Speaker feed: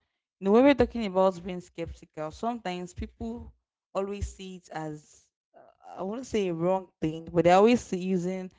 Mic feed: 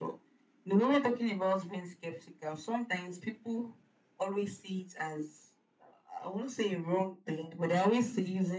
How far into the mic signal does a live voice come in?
none

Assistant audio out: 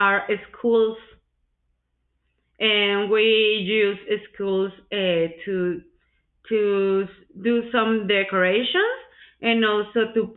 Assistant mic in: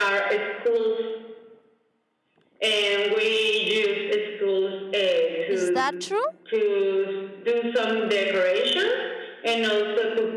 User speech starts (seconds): 5.5 s

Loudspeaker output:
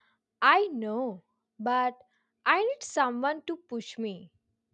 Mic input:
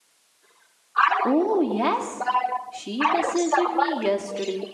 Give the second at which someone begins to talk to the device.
1.2 s

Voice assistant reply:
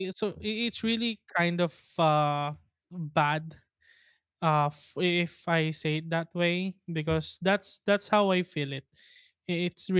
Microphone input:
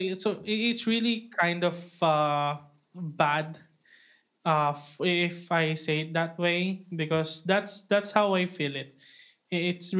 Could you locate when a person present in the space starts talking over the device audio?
none

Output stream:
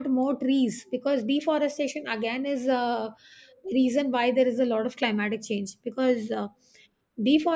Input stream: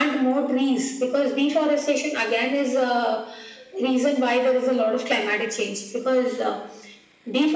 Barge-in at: none

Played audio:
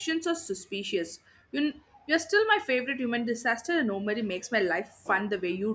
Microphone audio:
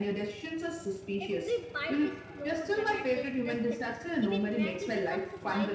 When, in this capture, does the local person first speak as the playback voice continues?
1.2 s

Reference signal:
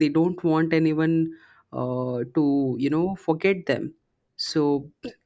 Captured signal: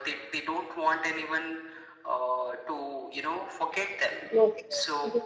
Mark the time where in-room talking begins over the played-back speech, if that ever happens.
4.3 s

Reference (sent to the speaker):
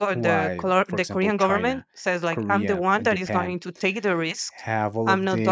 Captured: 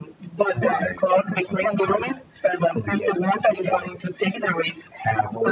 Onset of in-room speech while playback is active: none

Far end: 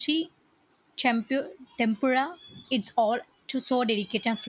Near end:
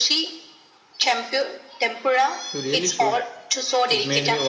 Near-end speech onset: 2.5 s

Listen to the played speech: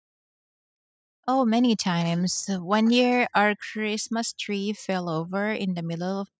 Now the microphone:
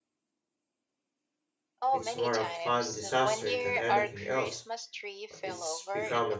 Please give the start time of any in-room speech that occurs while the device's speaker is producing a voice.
1.9 s

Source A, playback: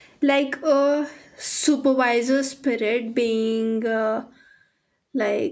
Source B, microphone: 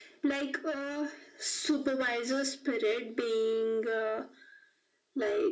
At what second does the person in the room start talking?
none

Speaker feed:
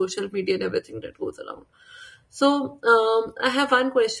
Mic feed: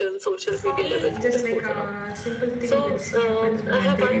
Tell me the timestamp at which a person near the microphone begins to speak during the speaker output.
0.6 s

